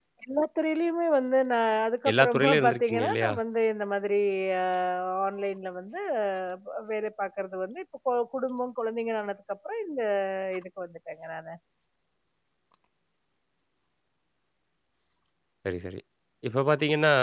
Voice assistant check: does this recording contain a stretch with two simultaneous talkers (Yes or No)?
Yes